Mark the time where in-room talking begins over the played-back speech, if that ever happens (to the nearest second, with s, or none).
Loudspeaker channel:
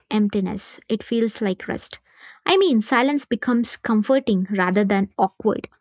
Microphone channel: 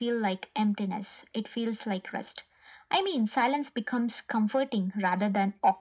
none